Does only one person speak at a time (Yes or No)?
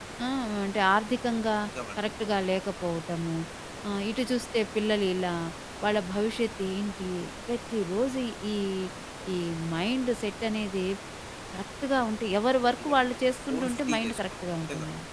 No